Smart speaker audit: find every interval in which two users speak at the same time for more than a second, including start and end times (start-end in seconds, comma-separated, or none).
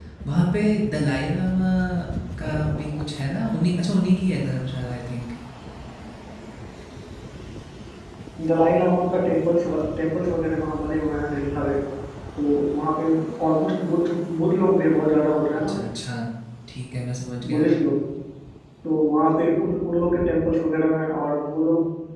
none